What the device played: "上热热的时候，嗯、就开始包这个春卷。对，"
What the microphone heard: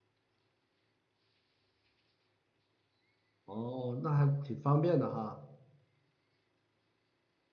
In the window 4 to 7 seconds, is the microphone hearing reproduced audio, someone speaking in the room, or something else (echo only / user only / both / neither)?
user only